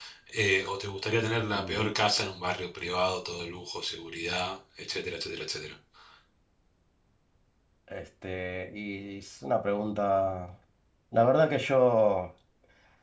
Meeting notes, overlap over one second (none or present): none